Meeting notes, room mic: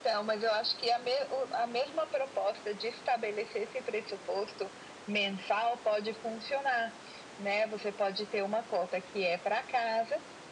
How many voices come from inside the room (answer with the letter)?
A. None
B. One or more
A